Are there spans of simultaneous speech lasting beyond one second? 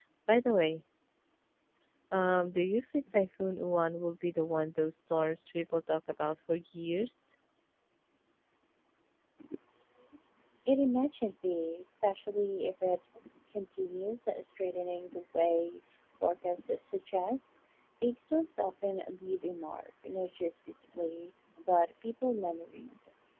No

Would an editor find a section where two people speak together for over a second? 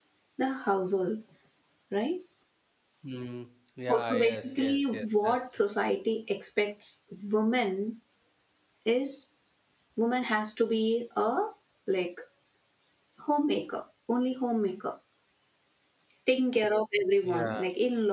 Yes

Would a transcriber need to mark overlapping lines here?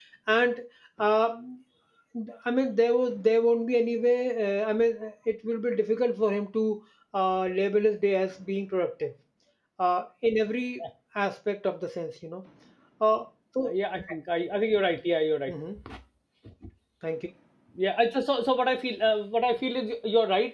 No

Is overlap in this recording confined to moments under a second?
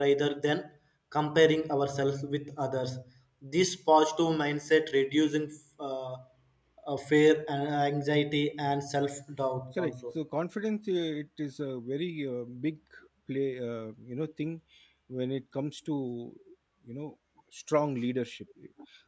Yes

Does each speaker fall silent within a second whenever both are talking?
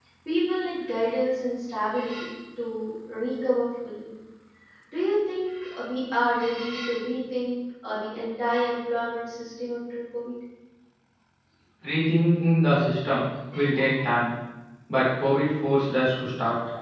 Yes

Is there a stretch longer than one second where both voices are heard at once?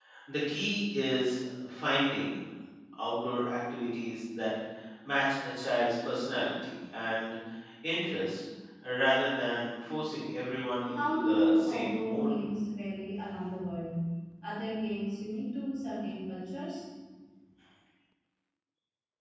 Yes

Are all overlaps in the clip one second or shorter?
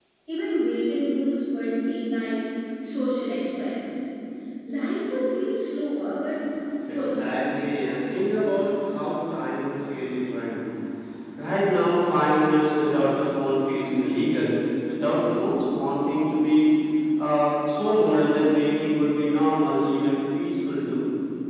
Yes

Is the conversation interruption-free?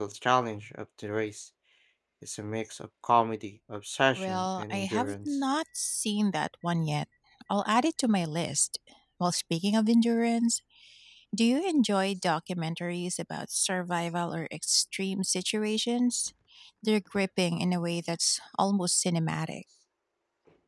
No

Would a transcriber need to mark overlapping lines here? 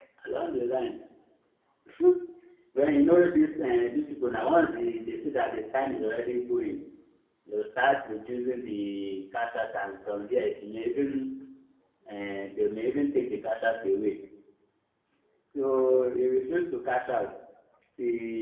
No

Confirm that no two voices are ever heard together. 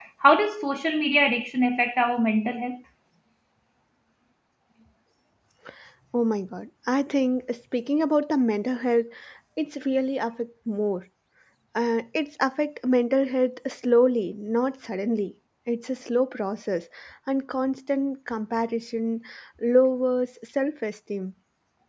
Yes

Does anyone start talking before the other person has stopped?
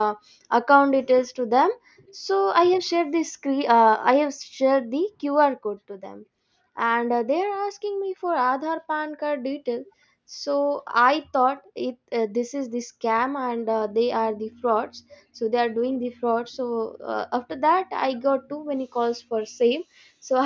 No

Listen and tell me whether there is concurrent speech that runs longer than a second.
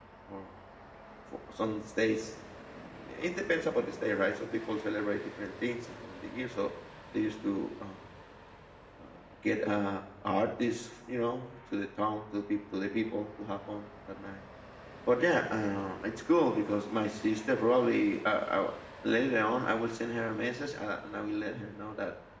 No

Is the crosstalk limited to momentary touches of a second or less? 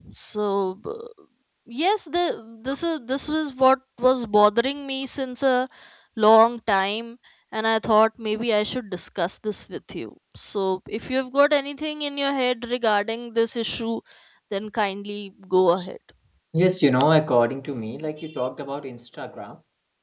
Yes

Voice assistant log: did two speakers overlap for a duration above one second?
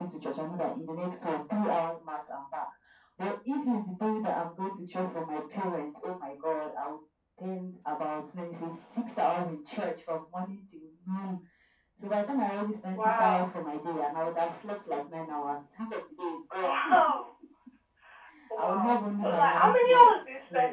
Yes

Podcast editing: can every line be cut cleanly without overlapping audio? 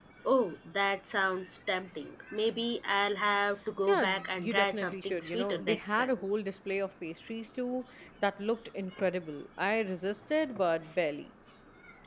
No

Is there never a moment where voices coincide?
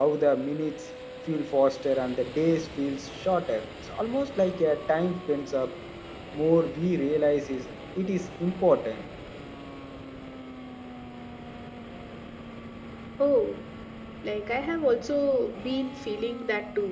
Yes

